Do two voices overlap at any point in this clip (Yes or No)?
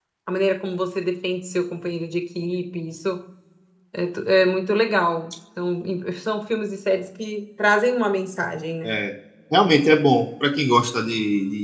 No